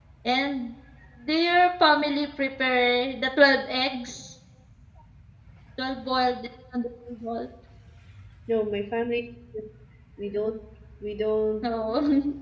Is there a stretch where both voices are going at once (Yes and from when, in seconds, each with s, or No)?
No